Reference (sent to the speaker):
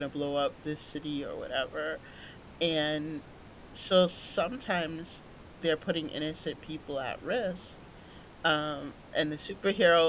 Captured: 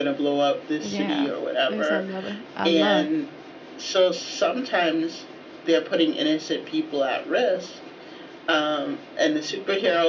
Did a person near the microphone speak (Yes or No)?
Yes